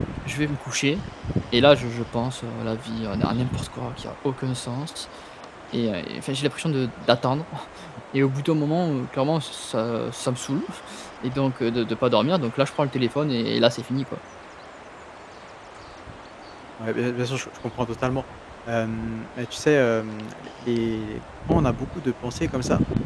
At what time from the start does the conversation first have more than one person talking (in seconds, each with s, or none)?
none